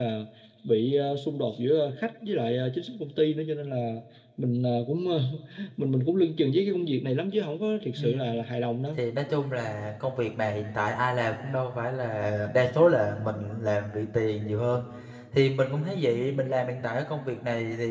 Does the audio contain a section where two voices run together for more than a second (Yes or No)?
No